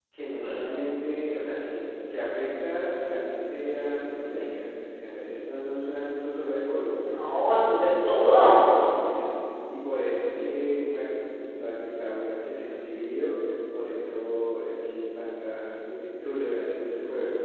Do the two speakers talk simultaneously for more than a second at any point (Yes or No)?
No